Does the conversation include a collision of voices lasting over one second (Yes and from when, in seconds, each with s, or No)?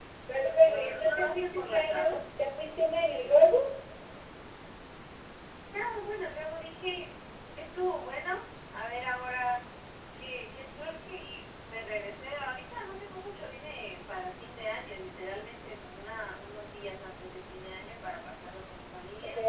Yes, from 0.6 s